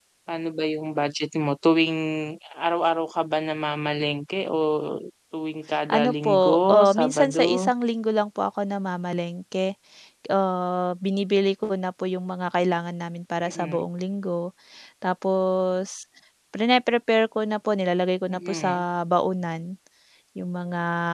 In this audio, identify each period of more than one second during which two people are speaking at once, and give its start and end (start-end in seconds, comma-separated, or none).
5.9-7.7